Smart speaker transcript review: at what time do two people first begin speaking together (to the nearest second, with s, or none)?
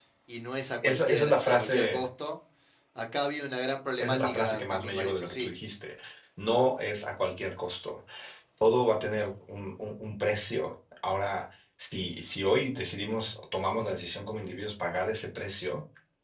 1 s